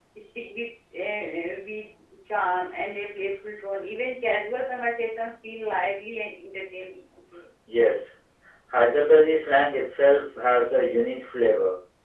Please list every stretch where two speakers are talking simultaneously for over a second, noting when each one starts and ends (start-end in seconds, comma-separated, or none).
none